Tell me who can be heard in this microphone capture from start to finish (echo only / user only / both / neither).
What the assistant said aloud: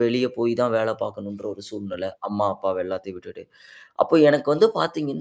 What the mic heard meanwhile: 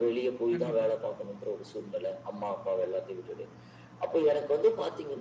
both